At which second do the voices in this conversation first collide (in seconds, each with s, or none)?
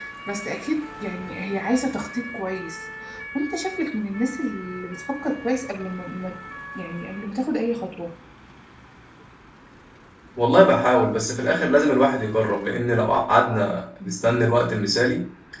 none